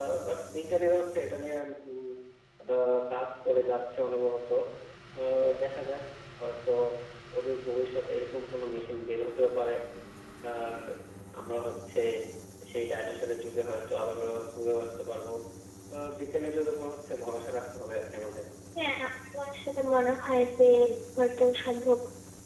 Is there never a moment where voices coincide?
Yes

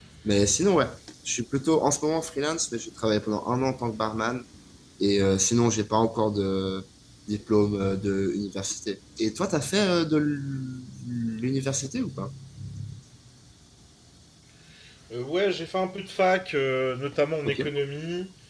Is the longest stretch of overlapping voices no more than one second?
Yes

